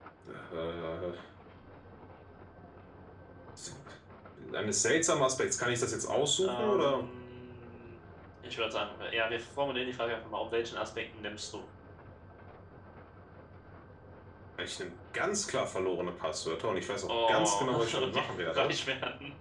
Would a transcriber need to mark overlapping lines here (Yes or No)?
Yes